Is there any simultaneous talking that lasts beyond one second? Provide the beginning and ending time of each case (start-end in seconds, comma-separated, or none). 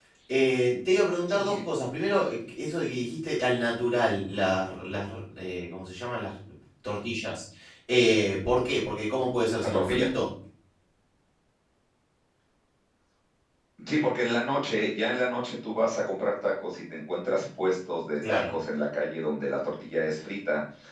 none